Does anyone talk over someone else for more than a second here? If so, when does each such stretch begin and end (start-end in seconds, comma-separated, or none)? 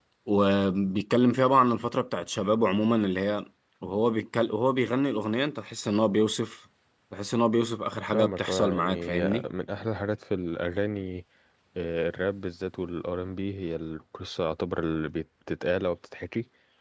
8.1-9.4